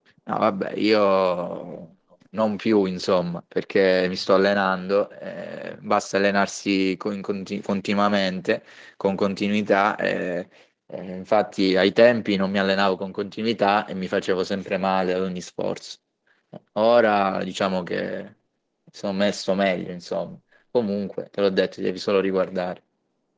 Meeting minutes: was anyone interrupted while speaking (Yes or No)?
No